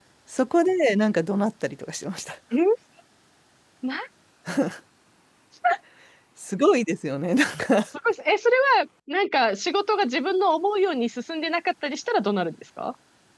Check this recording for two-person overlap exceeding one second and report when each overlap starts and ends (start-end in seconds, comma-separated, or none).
none